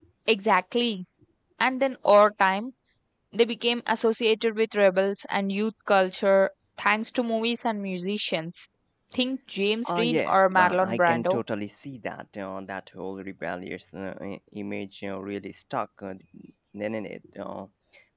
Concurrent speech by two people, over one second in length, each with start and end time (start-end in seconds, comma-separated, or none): 9.8-11.4